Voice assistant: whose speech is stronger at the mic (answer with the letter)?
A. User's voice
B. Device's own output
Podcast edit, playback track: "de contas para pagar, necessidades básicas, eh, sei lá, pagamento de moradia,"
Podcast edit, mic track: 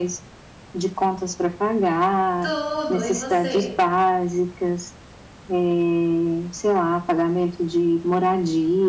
B